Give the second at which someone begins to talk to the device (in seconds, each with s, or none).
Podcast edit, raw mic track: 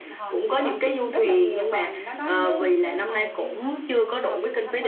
none